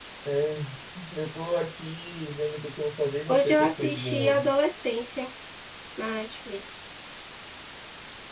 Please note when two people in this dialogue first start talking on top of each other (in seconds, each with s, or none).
3.3 s